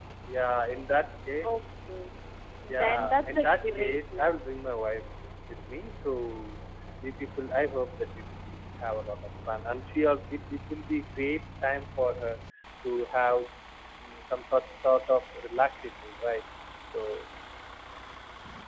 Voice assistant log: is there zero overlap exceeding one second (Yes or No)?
No